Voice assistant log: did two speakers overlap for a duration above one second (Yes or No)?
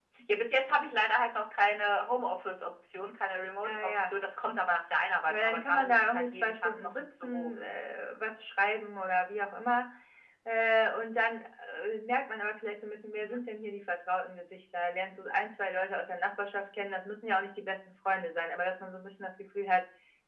Yes